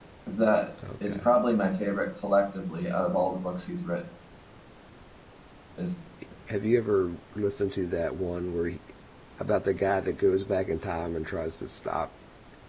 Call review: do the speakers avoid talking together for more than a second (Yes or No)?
Yes